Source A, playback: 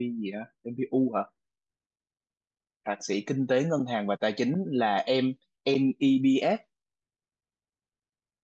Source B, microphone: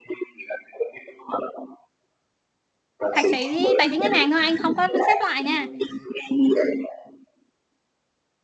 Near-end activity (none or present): present